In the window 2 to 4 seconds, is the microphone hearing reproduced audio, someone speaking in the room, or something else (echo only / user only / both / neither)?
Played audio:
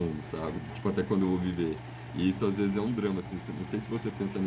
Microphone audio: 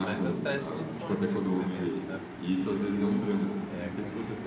both